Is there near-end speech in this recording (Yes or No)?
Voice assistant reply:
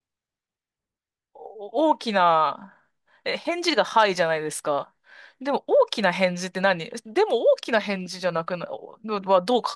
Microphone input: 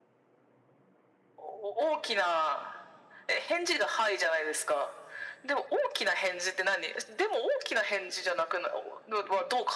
No